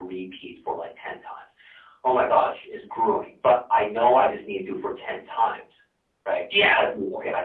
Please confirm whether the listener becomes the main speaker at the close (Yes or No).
No